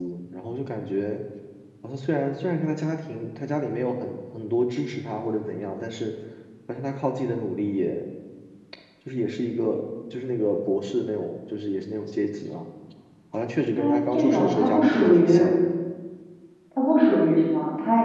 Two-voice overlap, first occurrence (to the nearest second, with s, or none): 14 s